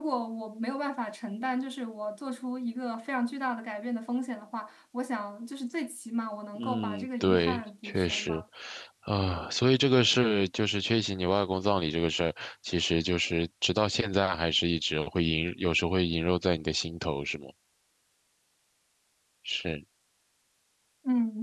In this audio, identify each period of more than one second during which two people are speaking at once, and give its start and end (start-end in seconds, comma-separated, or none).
6.6-8.4